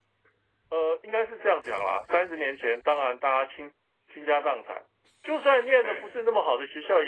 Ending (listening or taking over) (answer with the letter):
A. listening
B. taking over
A